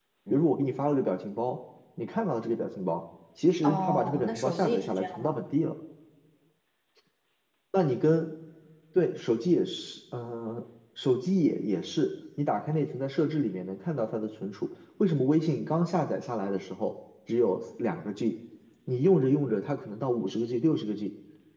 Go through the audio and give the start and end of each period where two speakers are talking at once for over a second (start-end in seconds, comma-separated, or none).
3.6-5.4